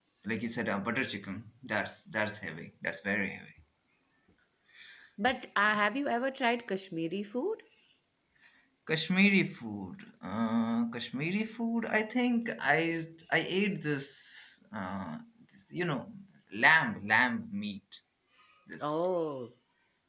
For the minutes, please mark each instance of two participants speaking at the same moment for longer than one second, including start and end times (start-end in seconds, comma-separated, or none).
none